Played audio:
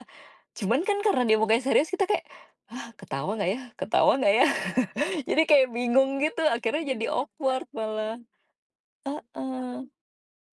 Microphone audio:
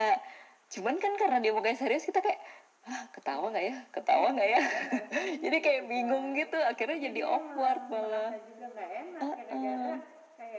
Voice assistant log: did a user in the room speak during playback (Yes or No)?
Yes